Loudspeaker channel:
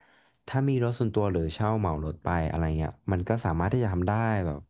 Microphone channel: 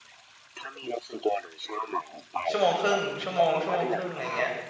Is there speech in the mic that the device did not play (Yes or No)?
Yes